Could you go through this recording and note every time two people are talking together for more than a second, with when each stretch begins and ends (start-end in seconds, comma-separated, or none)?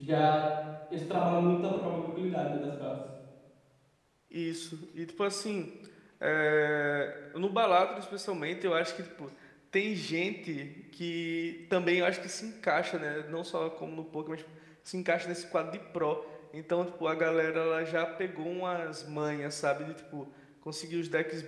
none